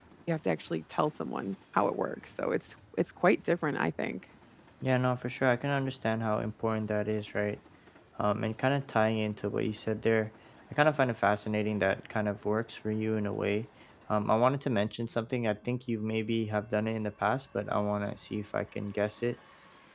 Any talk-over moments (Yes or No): No